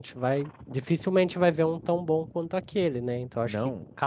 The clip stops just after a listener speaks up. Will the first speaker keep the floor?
Yes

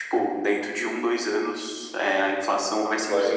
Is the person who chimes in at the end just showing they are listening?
No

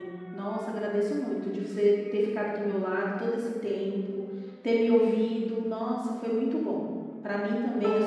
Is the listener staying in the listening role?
Yes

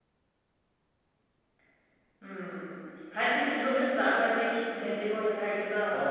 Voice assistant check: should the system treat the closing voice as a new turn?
Yes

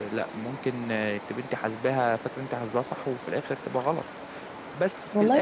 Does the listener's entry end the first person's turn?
Yes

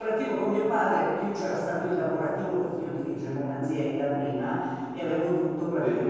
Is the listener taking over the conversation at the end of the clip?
No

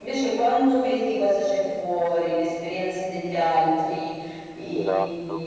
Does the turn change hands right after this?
No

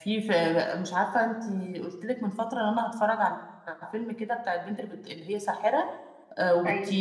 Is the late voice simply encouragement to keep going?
Yes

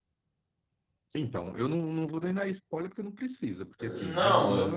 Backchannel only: No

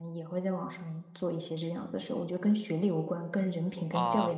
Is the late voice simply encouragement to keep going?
No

